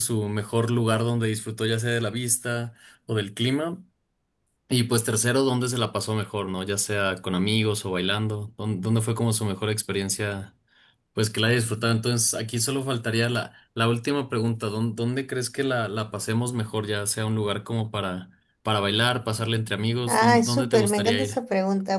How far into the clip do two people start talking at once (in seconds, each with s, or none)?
20.1 s